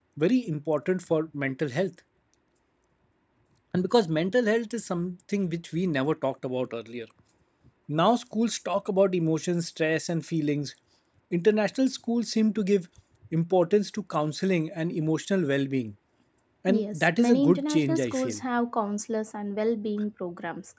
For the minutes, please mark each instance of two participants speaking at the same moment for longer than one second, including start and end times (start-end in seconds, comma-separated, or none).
16.7-18.4